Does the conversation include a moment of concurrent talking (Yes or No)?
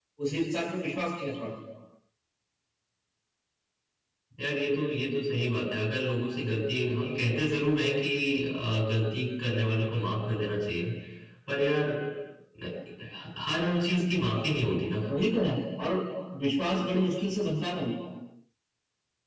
No